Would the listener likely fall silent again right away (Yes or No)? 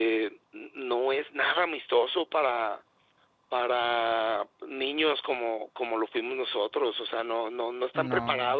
Yes